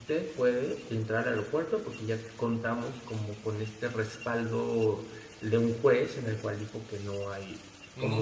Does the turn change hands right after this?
No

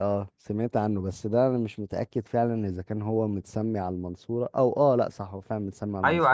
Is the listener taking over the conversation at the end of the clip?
Yes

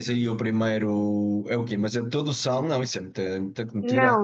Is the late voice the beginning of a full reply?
Yes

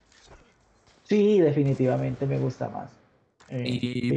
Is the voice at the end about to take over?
Yes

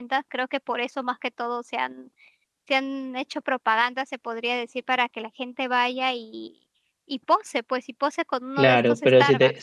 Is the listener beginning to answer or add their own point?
Yes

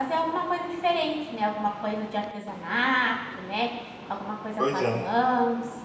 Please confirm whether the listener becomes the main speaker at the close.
No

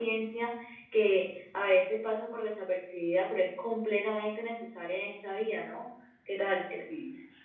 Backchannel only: No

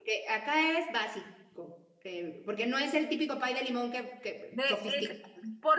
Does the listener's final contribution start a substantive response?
Yes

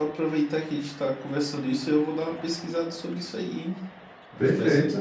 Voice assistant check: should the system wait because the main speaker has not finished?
No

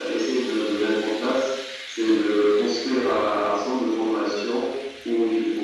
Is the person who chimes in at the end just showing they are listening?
Yes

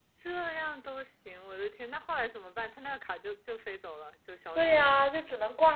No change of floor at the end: No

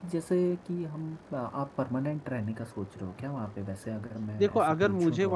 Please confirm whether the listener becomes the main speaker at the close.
Yes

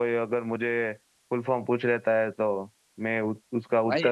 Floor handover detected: Yes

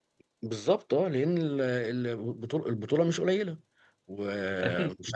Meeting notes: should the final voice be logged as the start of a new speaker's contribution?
No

